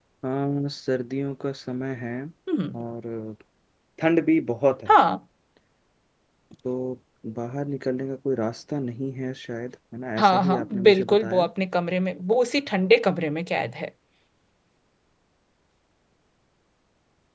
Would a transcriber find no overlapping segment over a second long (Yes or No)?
No